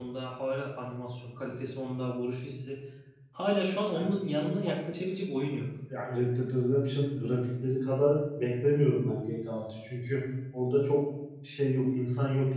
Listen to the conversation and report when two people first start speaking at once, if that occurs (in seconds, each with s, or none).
none